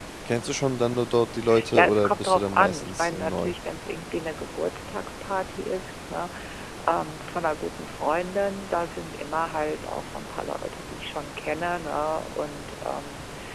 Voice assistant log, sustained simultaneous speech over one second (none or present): present